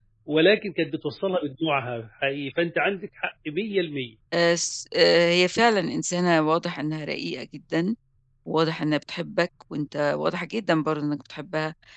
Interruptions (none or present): none